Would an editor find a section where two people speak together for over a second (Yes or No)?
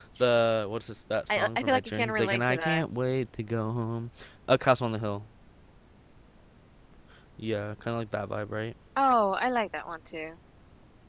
Yes